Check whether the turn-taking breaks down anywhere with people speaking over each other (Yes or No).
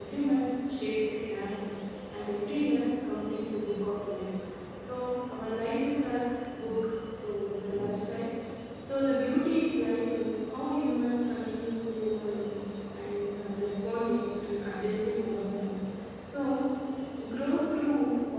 No